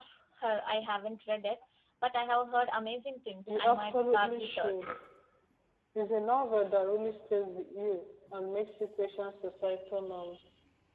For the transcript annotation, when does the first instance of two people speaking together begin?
3.5 s

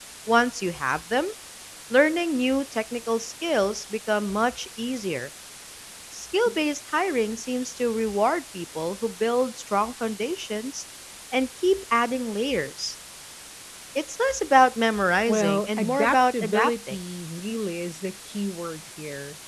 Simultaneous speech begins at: 15.3 s

